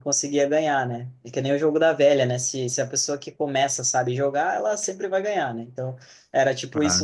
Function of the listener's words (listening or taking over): listening